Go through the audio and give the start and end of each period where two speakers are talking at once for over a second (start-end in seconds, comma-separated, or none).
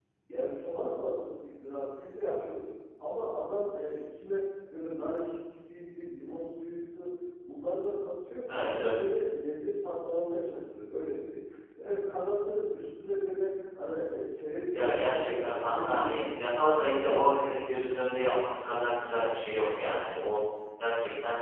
14.7-17.6